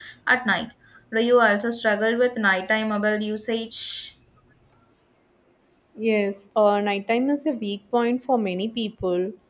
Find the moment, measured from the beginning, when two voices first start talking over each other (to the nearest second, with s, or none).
none